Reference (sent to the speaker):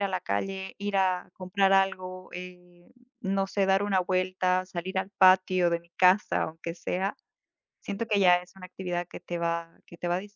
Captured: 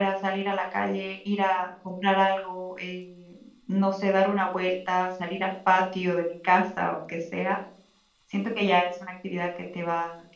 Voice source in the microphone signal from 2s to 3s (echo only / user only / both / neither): echo only